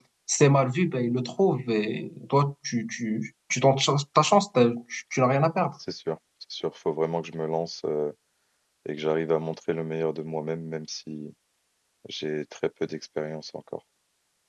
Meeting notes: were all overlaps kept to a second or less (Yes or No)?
Yes